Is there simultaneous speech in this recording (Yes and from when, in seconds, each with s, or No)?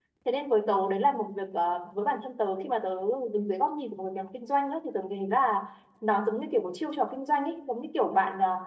No